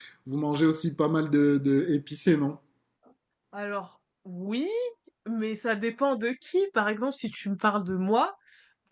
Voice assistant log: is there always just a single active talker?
Yes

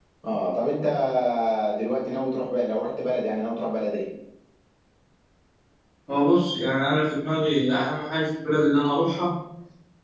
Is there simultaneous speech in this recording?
No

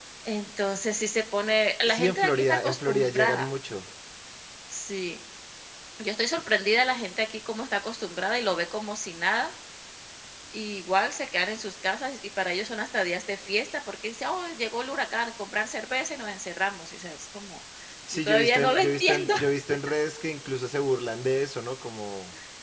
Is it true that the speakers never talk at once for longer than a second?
No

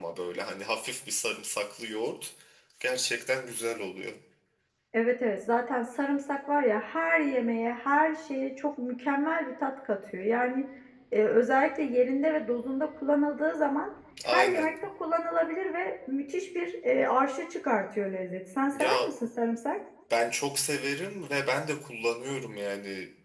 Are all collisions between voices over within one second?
Yes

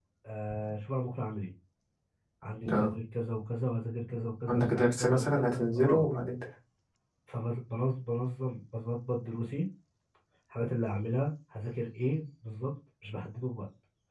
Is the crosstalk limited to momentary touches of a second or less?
No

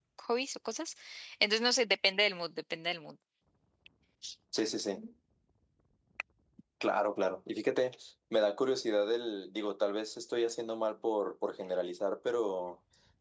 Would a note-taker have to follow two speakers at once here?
No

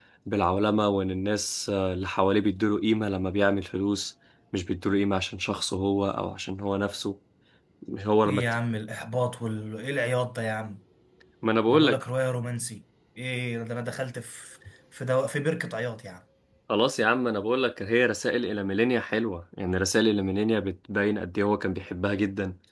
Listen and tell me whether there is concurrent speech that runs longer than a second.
No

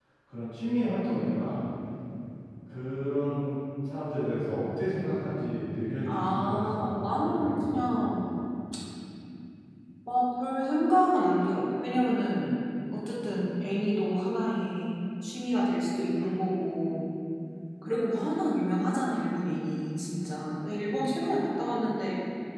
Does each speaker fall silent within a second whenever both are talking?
No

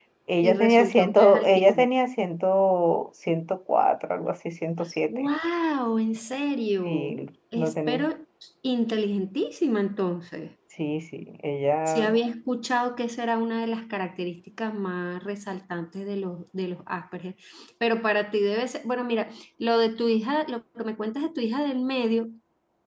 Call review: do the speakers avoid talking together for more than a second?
No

